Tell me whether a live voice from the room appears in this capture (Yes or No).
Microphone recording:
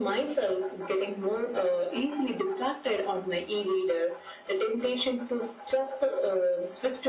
No